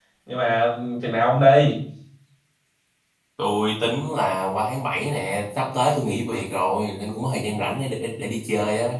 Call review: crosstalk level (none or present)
none